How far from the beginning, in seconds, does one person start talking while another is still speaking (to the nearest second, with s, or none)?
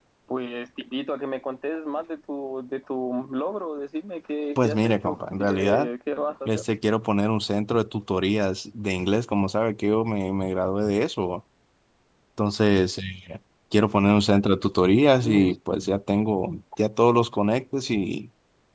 5 s